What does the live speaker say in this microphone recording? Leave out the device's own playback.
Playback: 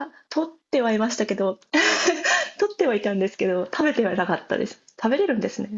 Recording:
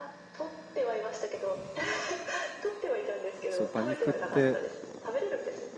そう、馬肉って

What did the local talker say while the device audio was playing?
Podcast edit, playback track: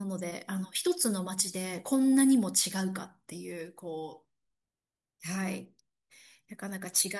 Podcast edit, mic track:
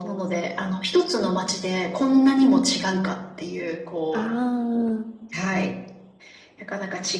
あ

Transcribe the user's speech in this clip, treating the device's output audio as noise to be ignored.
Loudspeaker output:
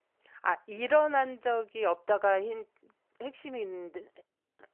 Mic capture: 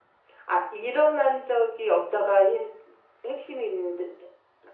none

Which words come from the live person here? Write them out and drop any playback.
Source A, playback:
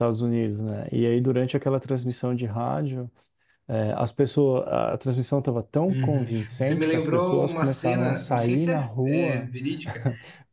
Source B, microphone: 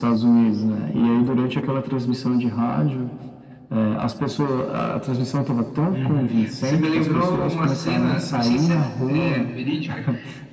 none

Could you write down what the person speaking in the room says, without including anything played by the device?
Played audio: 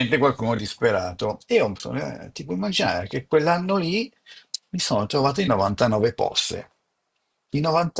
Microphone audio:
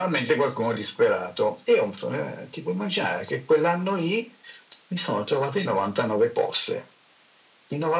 none

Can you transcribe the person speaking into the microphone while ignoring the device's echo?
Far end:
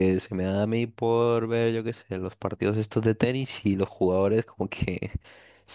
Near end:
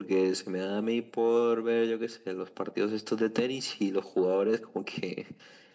none

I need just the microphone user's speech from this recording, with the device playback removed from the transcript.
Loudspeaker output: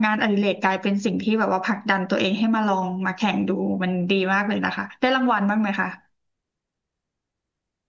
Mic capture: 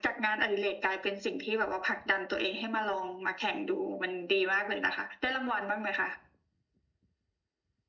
none

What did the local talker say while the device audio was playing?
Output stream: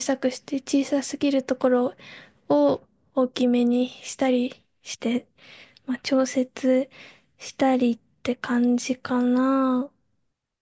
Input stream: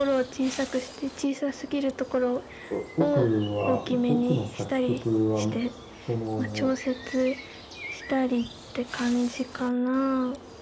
お僕は、僕の作曲は、その、

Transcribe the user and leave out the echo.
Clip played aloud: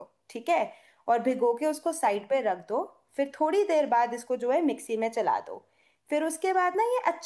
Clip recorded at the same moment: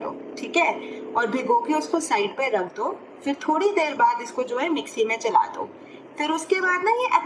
none

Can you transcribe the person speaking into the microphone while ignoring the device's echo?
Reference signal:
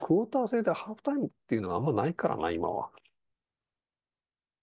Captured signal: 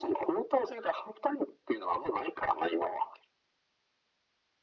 none

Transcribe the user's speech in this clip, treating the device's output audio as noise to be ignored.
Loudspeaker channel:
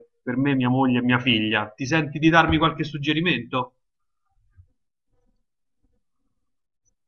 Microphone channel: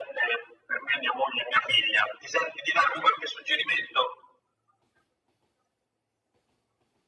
none

